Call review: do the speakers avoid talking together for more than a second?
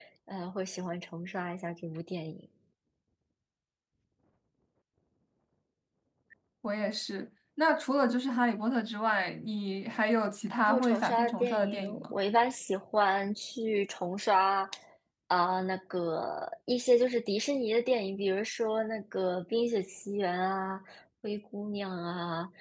No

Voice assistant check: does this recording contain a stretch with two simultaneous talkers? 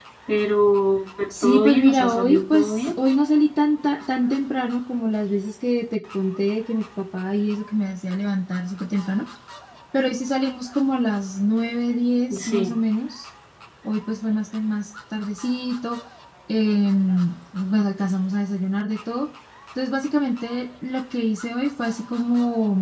Yes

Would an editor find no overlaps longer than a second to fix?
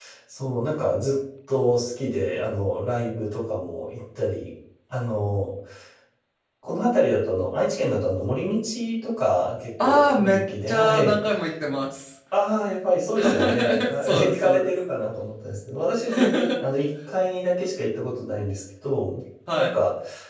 No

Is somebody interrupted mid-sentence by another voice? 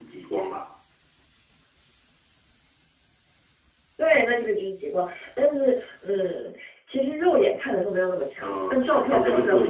Yes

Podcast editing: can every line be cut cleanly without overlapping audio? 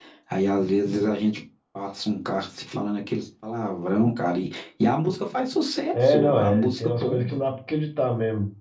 No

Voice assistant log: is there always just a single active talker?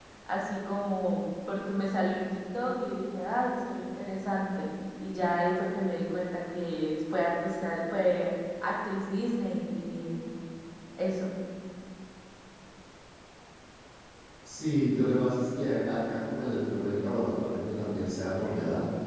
Yes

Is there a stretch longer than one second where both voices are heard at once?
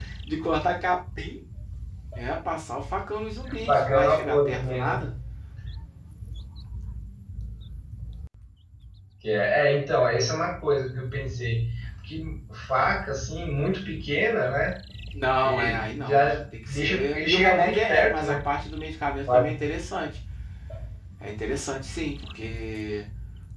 Yes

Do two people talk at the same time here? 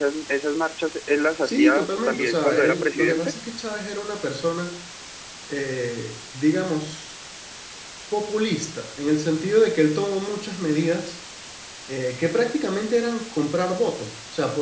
Yes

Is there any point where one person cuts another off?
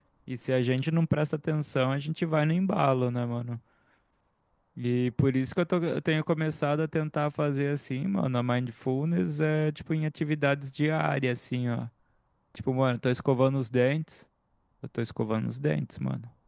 No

